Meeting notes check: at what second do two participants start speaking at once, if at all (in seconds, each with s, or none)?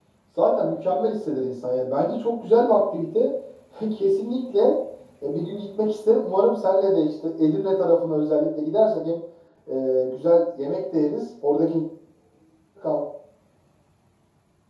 none